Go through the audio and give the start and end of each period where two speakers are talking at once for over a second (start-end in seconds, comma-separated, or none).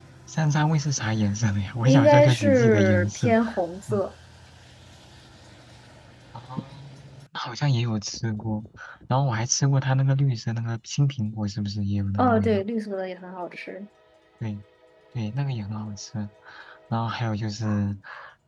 1.8-3.3